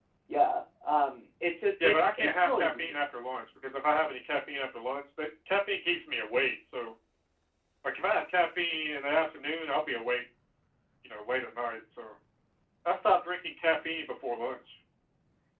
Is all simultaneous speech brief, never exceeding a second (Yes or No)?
No